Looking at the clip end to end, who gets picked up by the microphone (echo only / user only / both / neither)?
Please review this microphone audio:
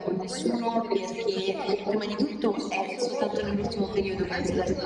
echo only